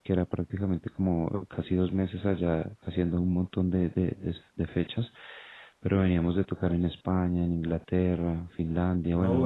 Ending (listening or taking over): taking over